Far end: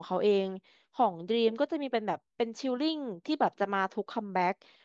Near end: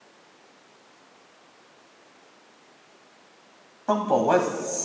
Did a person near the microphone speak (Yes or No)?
Yes